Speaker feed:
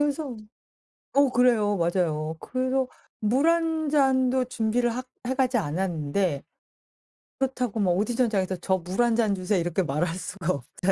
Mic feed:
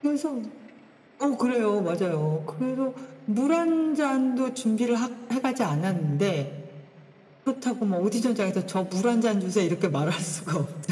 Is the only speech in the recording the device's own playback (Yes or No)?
Yes